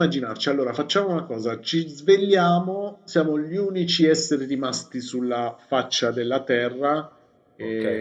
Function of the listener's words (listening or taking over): taking over